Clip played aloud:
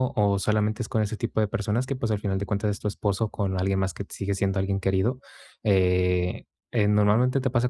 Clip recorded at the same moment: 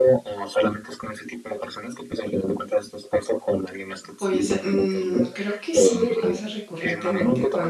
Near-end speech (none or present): present